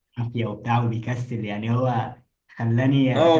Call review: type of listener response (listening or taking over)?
taking over